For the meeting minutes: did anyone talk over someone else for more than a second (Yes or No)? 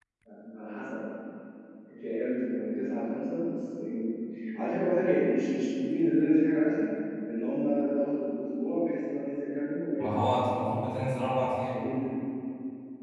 No